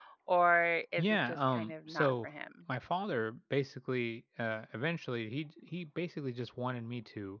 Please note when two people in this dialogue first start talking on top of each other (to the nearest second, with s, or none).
1 s